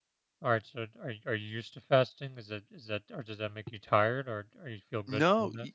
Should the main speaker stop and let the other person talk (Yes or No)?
Yes